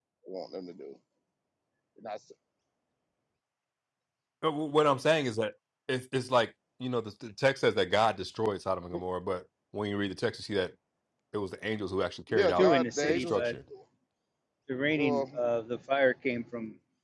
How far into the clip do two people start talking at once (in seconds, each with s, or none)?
12.3 s